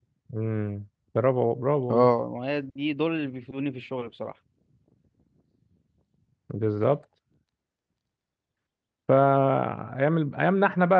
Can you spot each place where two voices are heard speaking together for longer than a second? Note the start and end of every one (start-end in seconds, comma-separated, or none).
none